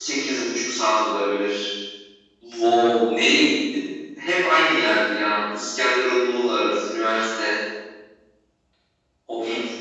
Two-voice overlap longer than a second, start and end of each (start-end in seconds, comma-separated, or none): none